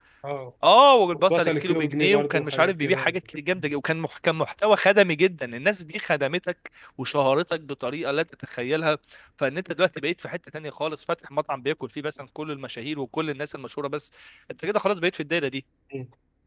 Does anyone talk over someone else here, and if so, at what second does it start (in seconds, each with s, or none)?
1.3 s